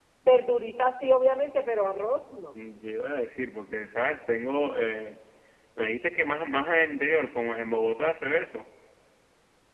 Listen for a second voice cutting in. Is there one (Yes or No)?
No